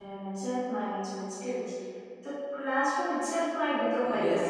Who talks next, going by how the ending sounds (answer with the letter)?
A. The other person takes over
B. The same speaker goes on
A